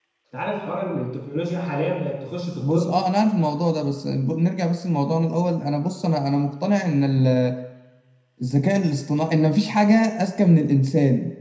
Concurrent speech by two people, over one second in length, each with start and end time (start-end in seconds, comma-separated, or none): none